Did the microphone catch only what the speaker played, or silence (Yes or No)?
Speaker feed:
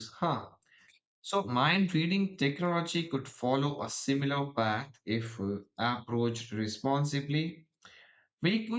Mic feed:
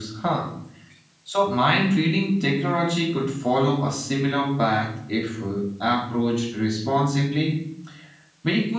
Yes